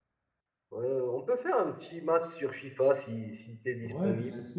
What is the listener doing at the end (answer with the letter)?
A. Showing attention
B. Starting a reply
B